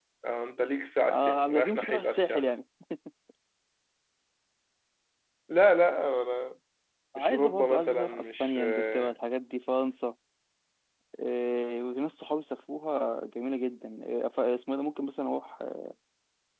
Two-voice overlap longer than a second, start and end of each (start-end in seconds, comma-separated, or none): 1.1-2.4, 7.2-9.1